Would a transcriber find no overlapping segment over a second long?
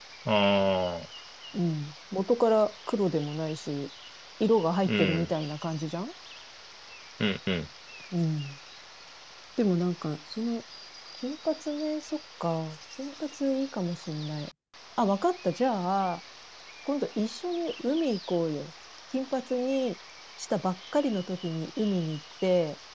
Yes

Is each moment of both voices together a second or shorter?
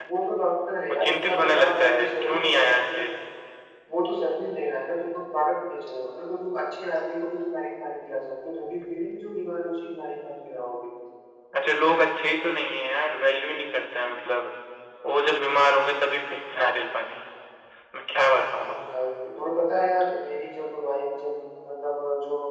No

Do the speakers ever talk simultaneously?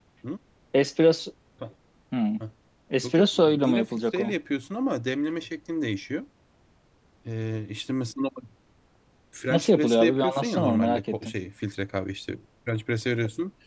Yes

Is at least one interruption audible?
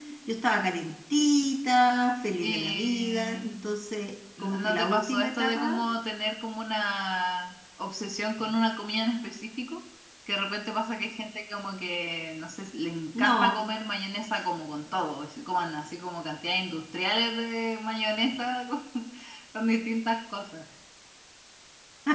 Yes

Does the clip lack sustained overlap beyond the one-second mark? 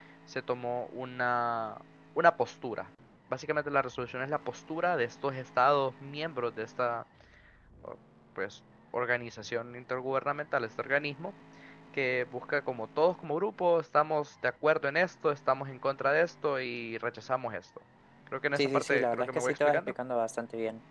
No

